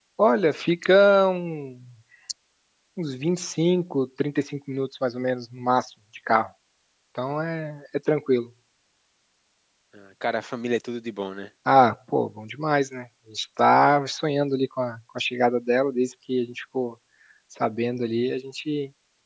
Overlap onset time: none

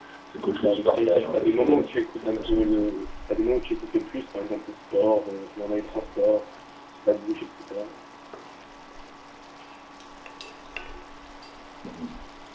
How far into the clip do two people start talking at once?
0.6 s

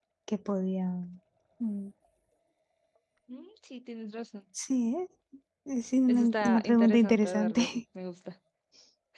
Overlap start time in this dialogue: 6.1 s

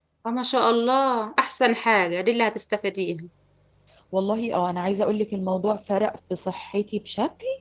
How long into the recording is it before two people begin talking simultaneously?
none

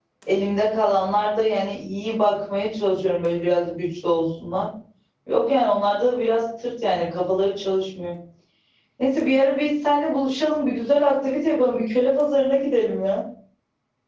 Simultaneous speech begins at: none

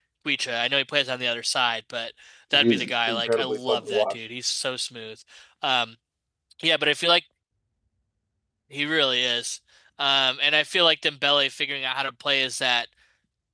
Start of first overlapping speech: 2.5 s

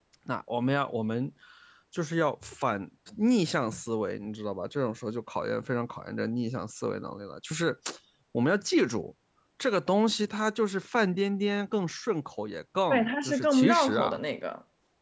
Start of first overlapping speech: 12.9 s

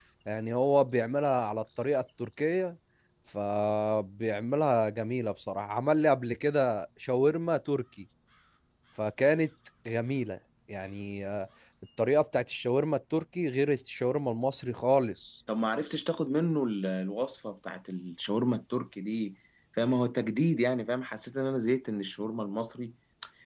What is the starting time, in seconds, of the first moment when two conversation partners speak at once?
none

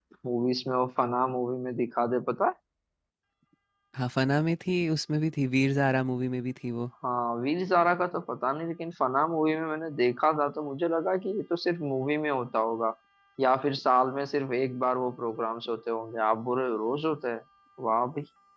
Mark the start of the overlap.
none

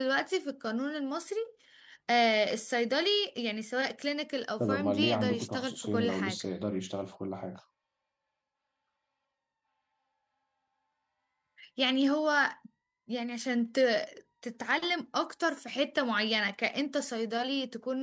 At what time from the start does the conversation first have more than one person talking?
4.6 s

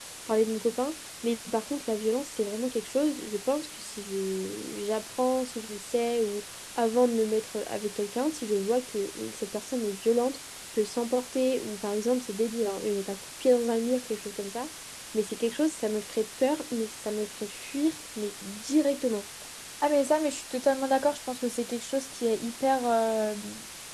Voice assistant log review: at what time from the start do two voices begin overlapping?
none

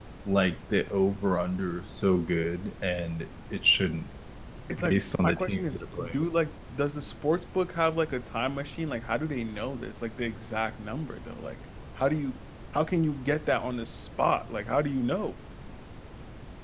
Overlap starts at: 4.8 s

